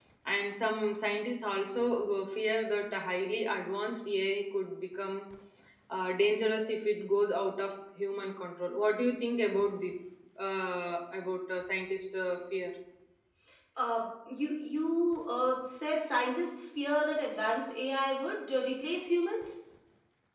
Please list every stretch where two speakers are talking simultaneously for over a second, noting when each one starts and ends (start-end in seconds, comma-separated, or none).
none